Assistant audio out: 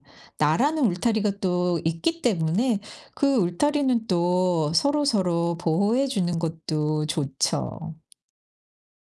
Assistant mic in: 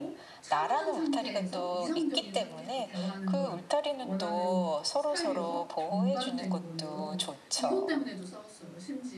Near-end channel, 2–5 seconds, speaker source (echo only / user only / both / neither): both